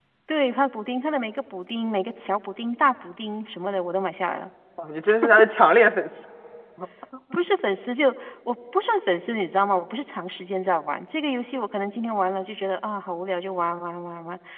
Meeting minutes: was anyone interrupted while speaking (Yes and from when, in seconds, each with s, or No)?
No